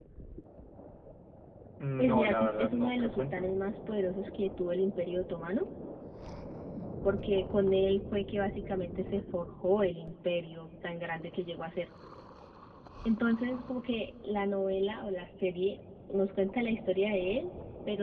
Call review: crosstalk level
present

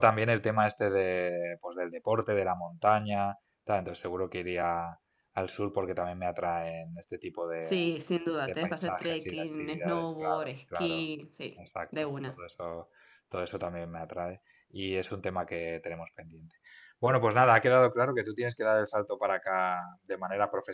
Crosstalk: present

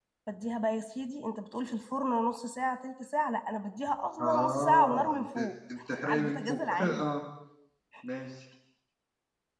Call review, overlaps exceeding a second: present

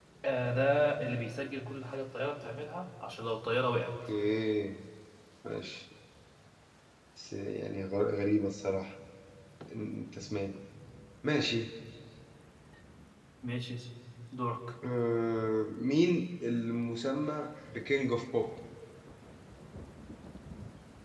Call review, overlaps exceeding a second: none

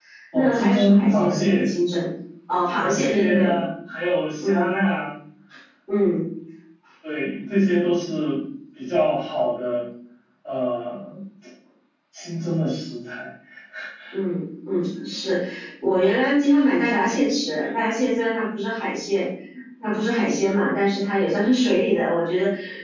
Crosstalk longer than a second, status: present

